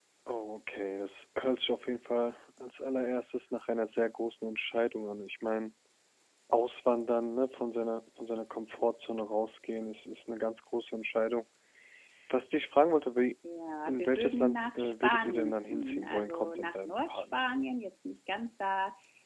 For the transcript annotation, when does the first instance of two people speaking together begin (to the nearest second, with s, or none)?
14 s